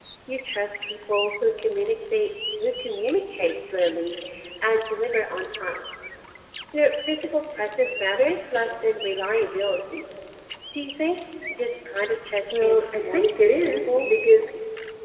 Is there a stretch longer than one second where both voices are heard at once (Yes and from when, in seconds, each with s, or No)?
Yes, from 12.5 s